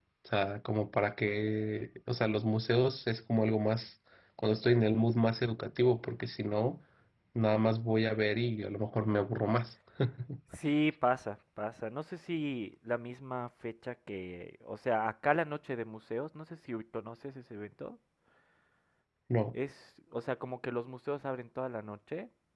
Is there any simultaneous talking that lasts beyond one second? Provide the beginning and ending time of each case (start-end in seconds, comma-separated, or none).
none